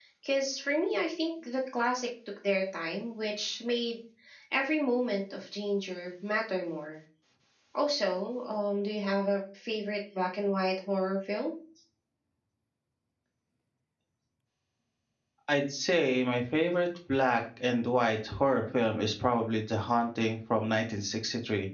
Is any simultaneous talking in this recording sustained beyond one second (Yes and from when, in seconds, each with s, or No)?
No